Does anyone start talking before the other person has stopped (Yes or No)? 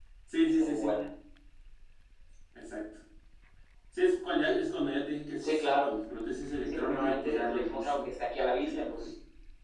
Yes